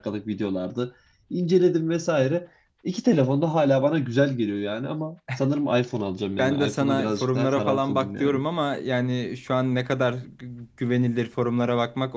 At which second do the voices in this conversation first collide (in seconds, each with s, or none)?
6.4 s